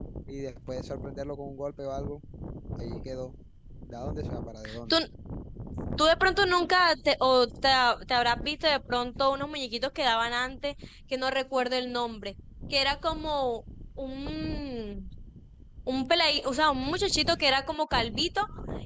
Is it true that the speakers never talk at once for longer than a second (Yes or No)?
Yes